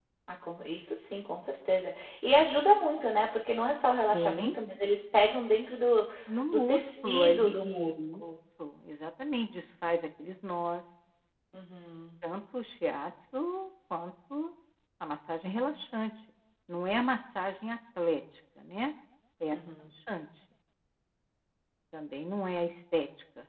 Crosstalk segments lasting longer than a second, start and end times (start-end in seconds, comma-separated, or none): 6.5-8.2